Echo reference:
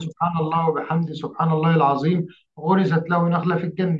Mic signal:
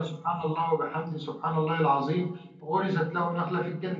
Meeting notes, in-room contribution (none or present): none